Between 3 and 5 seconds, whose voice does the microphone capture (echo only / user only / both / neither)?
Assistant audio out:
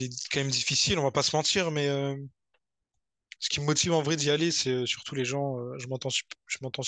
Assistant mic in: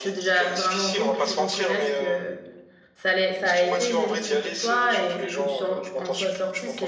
both